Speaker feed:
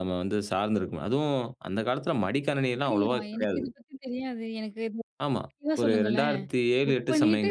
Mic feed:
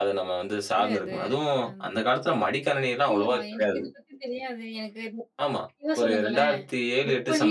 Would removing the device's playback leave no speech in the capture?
No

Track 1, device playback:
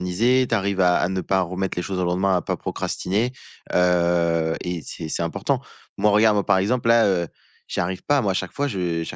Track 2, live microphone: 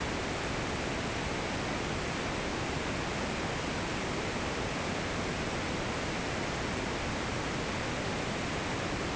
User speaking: No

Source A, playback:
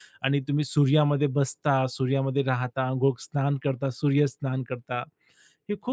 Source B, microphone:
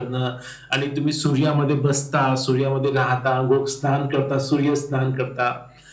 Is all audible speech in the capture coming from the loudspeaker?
Yes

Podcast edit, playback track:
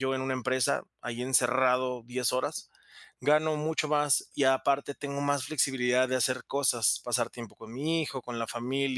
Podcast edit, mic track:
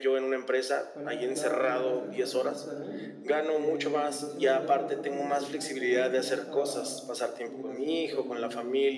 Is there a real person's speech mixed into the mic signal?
Yes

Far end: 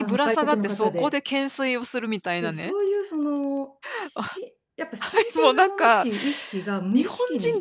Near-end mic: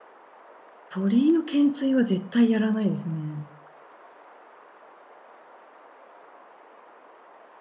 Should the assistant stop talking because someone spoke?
Yes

